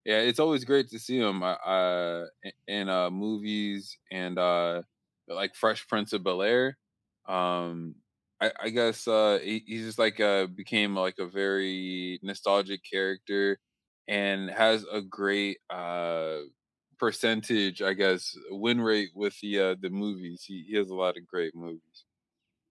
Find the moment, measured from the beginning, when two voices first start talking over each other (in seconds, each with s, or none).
none